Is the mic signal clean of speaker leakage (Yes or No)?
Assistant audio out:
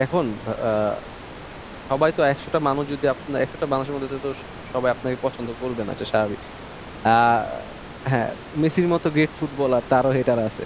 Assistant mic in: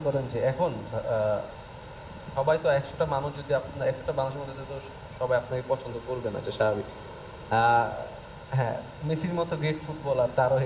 No